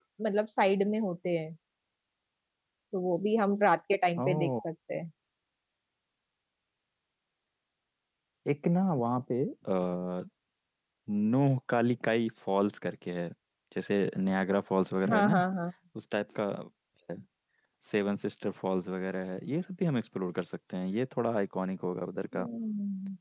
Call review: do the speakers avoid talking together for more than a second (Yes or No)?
Yes